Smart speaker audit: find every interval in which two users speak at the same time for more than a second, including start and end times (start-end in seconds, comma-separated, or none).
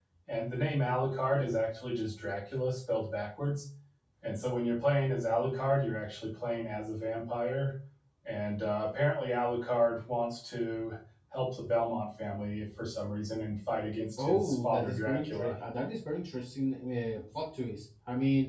14.2-15.6